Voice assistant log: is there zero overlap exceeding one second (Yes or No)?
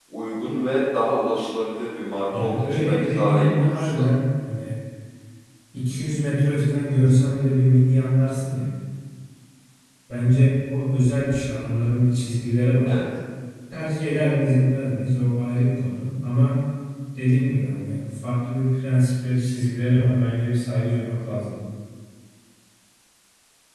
No